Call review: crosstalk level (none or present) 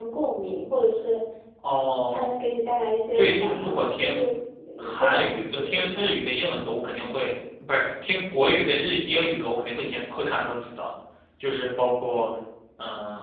present